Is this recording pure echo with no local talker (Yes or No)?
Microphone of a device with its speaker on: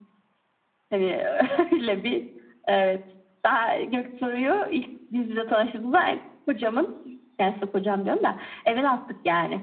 Yes